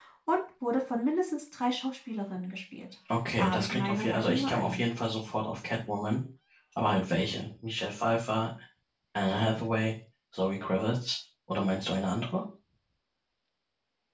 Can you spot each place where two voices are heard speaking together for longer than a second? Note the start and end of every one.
3.4-4.8

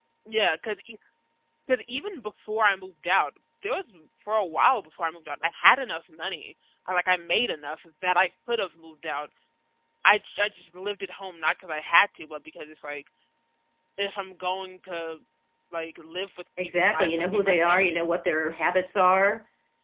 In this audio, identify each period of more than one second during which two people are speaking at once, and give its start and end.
16.6-17.9

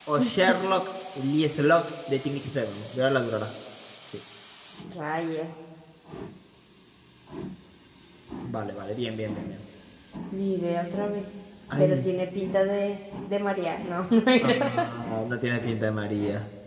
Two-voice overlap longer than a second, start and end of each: none

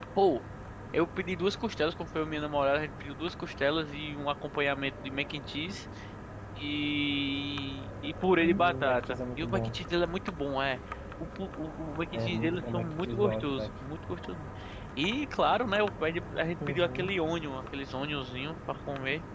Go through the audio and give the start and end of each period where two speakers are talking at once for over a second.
8.4-9.9, 12.1-13.7

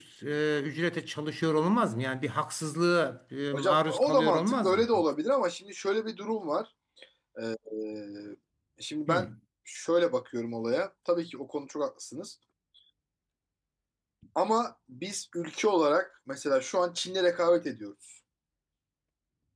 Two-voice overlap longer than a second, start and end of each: 3.5-4.9

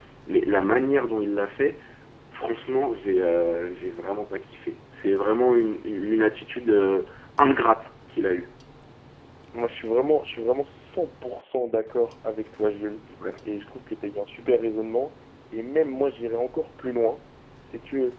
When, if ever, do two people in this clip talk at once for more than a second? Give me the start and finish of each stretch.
none

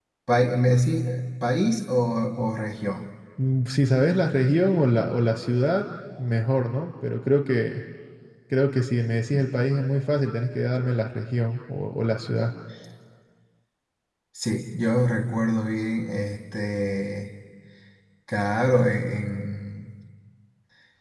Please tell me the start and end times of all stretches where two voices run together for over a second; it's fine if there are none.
none

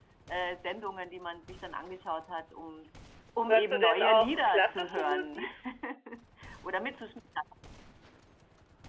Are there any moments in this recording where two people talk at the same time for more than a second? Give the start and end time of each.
3.5-5.4

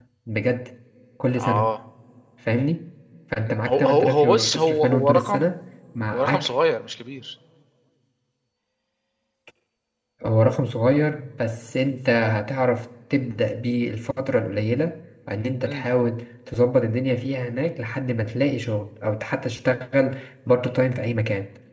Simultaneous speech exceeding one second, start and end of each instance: 3.7-5.5

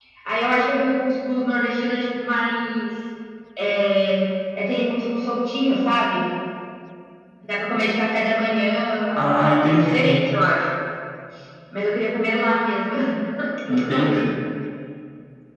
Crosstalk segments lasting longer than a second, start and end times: none

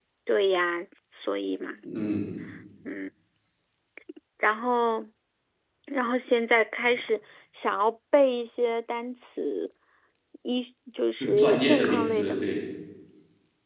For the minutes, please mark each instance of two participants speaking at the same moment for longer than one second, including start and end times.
11.2-12.4

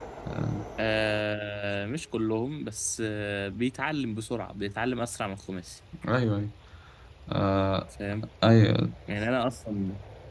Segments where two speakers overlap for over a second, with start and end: none

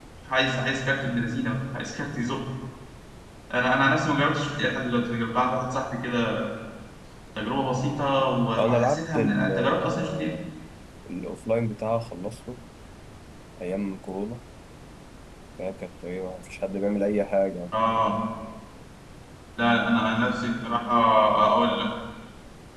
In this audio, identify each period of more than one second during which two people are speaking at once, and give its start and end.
8.6-10.3

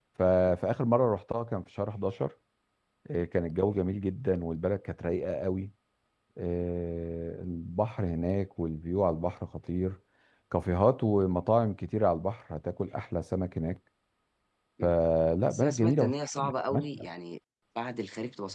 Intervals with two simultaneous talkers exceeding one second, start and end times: 15.5-17.0

